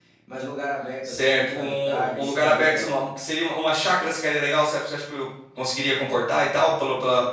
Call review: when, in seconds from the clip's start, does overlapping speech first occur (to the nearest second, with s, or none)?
1 s